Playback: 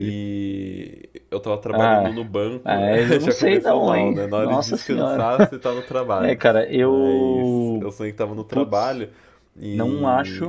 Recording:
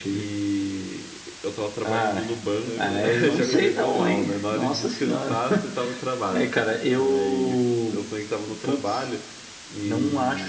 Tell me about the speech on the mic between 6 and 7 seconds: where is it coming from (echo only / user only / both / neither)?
echo only